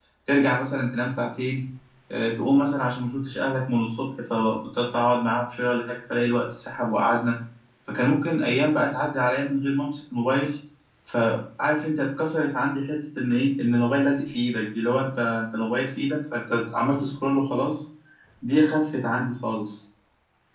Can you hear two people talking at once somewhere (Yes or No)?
No